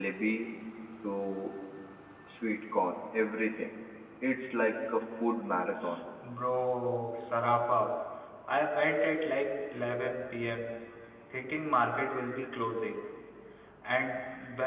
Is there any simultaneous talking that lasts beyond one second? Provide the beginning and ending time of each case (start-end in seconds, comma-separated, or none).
none